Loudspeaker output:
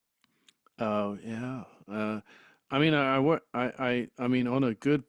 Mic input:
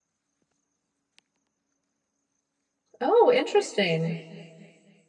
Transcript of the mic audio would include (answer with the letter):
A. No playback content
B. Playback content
A